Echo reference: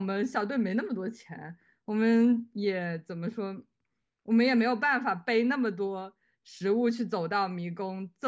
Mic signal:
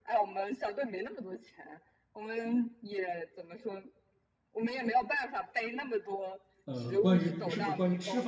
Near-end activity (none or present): present